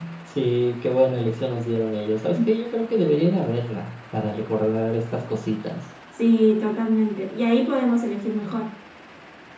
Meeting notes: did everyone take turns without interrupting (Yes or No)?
Yes